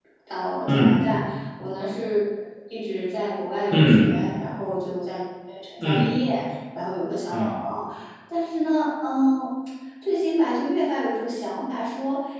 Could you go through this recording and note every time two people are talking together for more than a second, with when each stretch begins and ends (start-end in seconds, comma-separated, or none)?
none